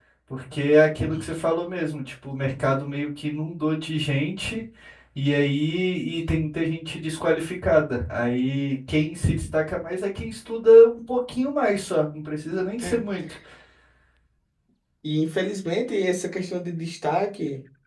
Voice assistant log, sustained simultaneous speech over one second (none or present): none